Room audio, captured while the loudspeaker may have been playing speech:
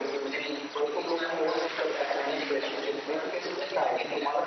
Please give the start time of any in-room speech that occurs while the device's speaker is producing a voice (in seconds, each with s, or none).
none